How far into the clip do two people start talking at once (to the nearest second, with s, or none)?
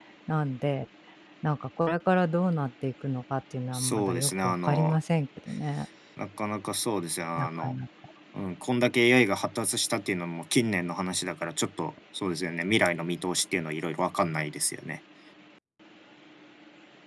4 s